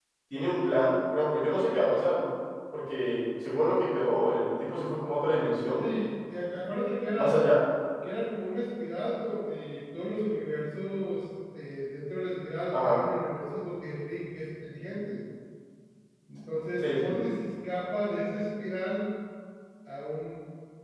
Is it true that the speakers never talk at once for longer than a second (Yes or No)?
Yes